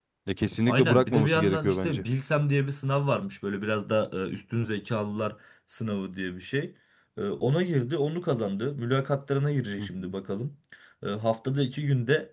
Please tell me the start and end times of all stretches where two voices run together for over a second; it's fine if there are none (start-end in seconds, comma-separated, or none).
0.7-2.0